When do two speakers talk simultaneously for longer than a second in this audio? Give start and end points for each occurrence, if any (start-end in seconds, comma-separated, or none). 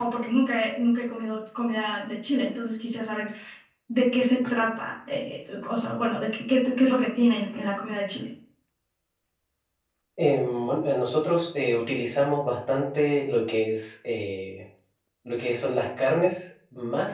none